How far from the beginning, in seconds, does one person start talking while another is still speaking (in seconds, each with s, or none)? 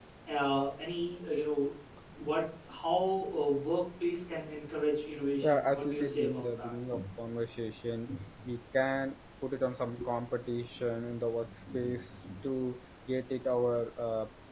5.4 s